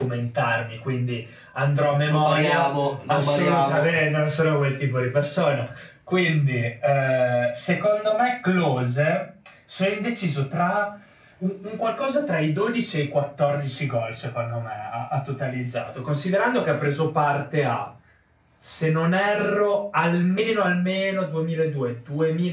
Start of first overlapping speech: 2.1 s

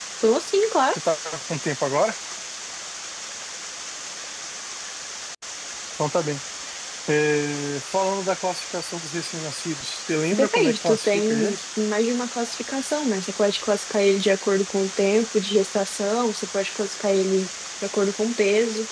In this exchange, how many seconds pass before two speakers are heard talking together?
10.3 s

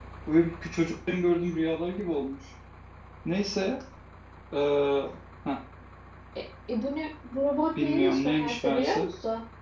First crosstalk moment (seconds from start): 7.8 s

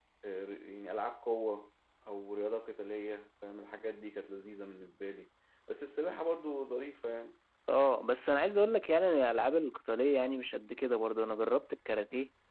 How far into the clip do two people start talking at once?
none

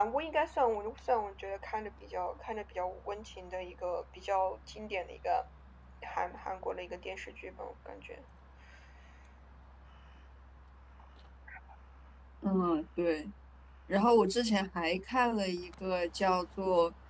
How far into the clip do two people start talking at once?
none

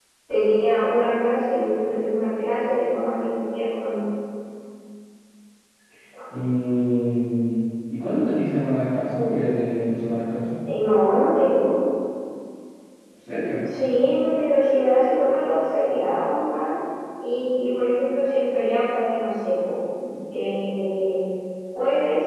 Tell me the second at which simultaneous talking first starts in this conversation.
none

